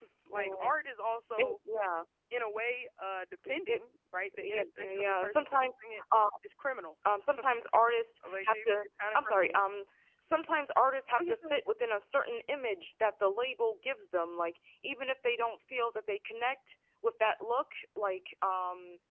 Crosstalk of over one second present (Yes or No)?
Yes